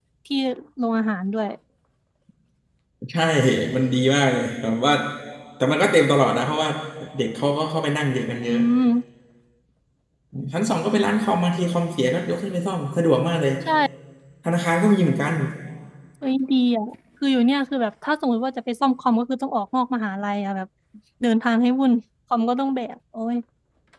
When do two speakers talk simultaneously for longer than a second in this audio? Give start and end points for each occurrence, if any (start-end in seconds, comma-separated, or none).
none